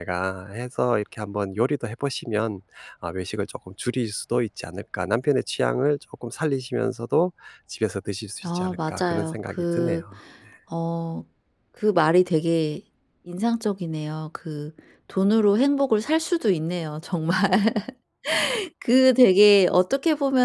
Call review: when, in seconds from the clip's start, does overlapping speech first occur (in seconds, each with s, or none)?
8.4 s